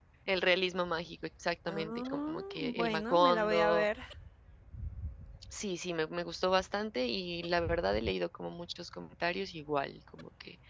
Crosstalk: present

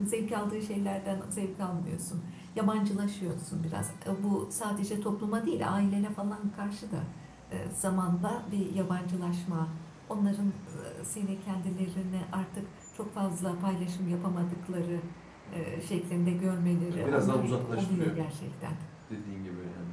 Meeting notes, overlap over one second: present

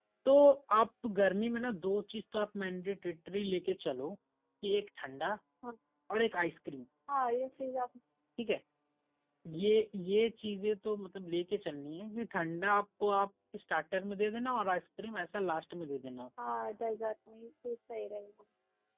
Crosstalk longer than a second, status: none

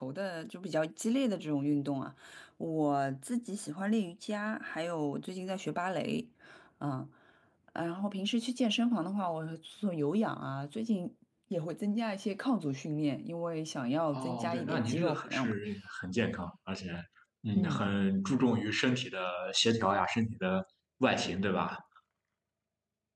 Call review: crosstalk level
present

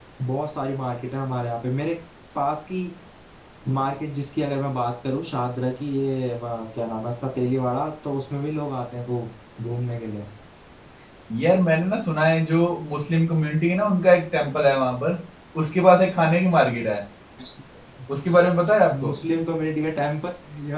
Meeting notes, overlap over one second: none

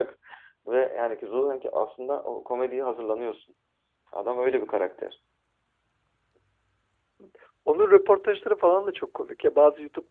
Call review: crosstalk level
none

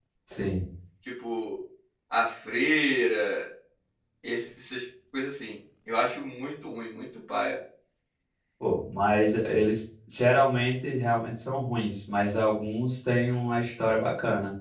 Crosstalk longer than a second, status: none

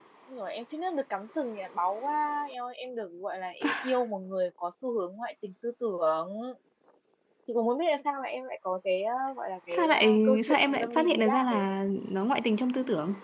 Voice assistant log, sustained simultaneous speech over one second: present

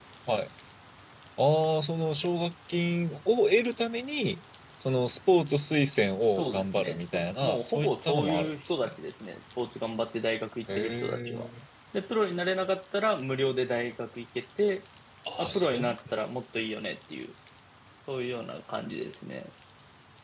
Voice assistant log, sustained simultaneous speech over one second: present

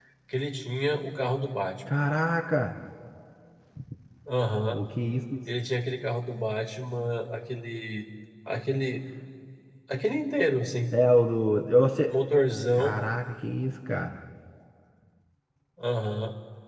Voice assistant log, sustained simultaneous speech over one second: none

